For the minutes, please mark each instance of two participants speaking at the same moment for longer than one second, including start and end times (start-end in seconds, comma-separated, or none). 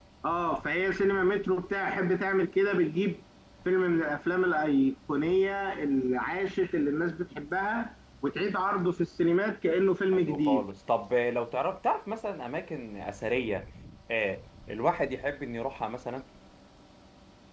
none